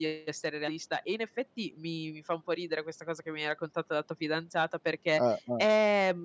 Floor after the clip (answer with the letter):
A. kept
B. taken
A